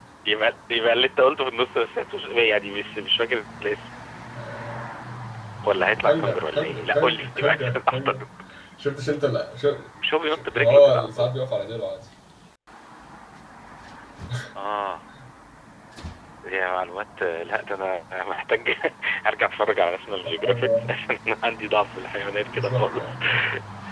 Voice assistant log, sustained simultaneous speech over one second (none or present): present